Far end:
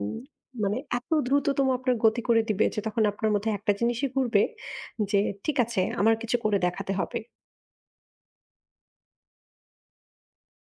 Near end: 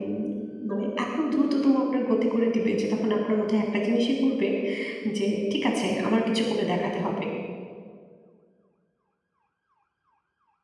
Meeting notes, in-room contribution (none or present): none